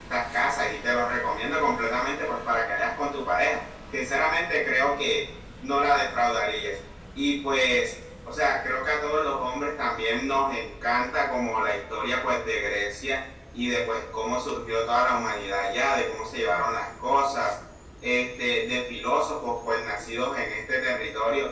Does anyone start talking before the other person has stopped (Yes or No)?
No